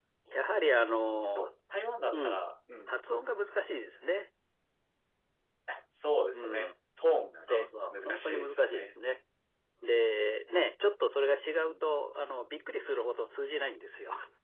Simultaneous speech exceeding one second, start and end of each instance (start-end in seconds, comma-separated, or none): 7.5-8.9